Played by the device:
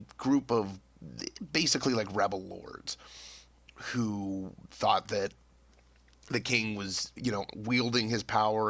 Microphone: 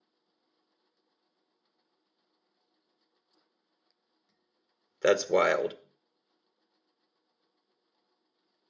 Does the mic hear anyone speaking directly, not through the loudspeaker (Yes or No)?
Yes